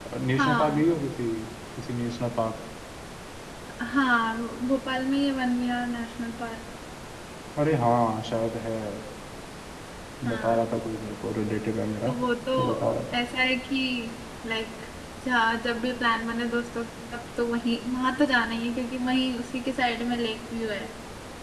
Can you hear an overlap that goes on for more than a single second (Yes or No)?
No